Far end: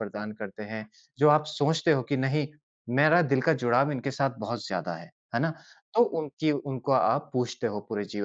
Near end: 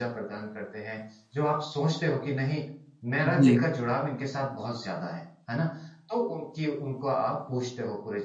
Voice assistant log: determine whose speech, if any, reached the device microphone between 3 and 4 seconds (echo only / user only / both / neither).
both